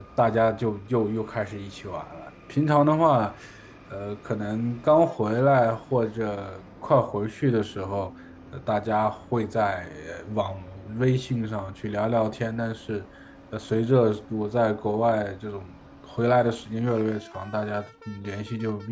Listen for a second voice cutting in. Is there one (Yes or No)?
No